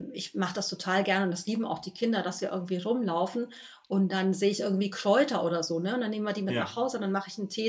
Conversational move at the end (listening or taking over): listening